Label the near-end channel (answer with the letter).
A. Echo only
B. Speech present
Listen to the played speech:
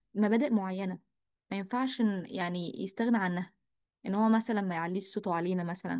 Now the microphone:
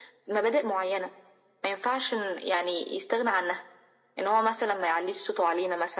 A